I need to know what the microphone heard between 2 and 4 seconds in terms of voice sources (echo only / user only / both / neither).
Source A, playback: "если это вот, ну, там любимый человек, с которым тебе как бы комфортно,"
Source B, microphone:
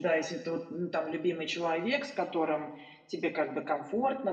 echo only